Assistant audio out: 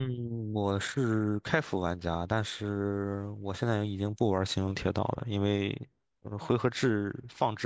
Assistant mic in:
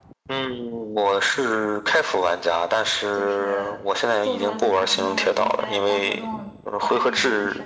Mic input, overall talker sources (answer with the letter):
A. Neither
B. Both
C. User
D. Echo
B